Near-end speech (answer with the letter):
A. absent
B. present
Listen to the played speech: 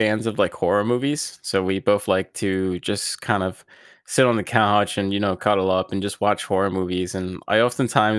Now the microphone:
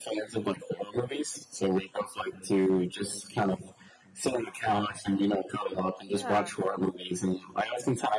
B